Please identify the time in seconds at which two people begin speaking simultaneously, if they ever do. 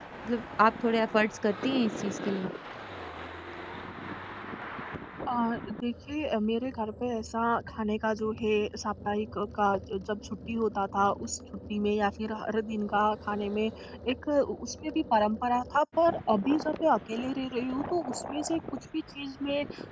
none

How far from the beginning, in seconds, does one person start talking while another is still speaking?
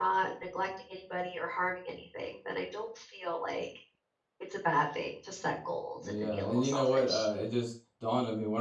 6 s

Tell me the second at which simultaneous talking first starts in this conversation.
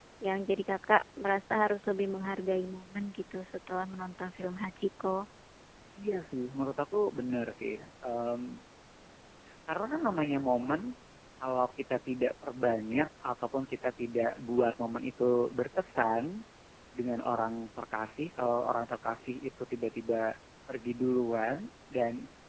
none

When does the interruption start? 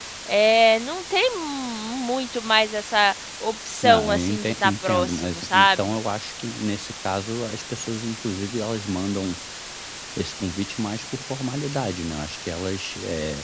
4 s

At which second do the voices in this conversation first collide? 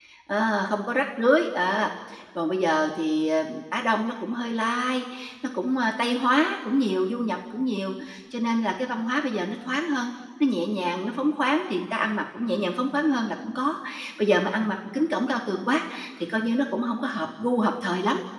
none

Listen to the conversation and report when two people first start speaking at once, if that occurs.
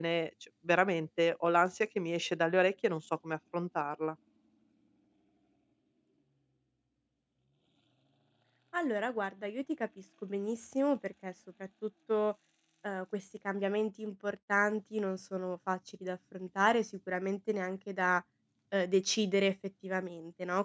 none

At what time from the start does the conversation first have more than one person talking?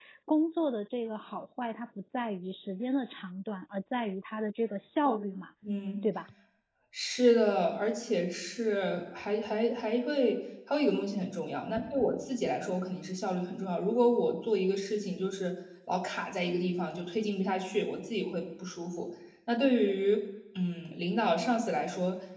none

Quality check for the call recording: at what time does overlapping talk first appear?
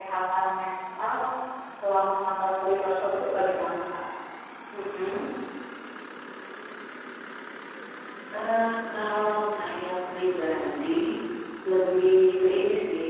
none

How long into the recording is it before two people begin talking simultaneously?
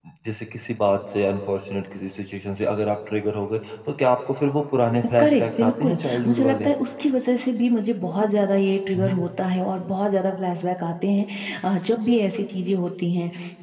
5 s

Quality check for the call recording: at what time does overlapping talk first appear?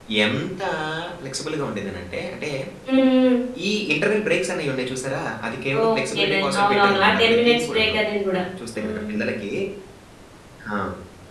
6 s

